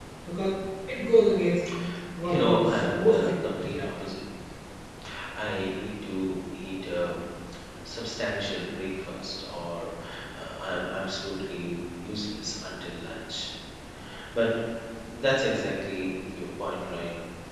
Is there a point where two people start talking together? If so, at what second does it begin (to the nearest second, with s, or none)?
2 s